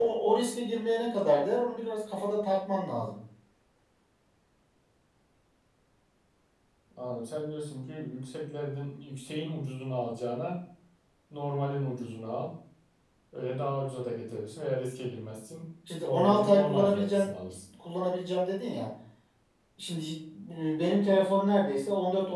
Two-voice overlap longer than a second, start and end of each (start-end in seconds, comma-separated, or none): 15.9-17.3